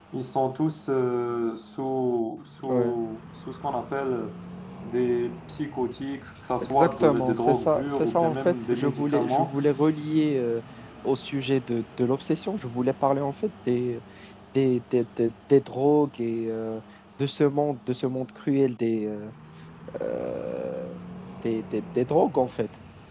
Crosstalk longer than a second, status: present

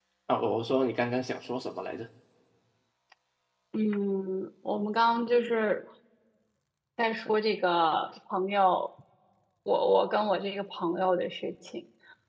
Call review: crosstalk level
none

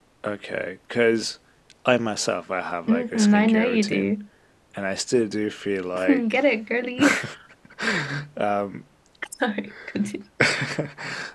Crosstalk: present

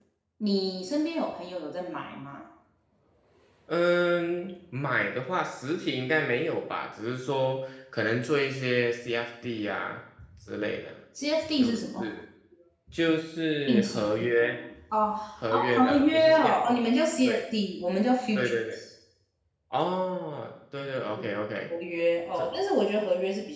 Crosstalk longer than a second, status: present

